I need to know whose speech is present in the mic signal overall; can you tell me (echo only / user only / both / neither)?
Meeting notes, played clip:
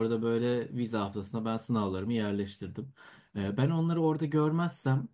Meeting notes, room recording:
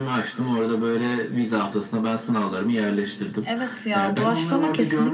both